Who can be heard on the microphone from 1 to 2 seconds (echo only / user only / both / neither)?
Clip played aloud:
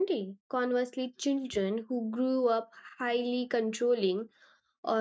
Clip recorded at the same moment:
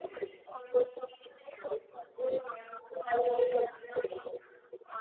echo only